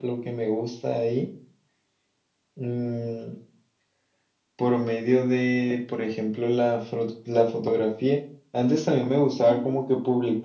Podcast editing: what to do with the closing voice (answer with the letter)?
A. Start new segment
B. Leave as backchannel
B